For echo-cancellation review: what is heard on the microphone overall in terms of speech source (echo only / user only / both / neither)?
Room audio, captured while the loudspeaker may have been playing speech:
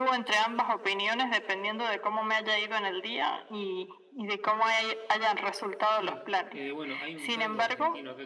both